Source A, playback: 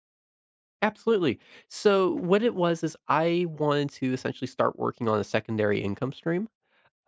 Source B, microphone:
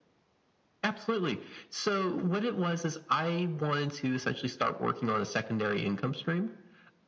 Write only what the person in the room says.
none

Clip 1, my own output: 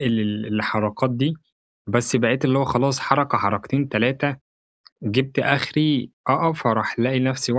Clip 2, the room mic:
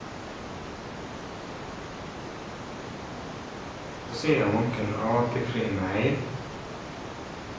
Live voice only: بُصّي، هي ممكن آه تفرق معايا،

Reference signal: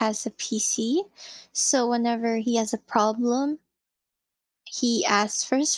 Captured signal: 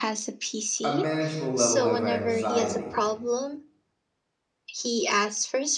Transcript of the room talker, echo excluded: a manageable level of anxiety.

